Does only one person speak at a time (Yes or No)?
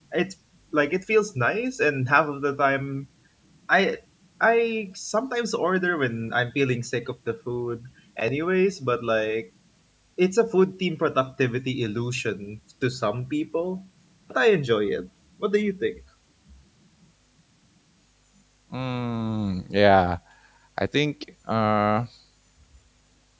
Yes